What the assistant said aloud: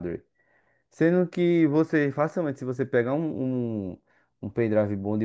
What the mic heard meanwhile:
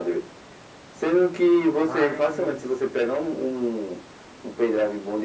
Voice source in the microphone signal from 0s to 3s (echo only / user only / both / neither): both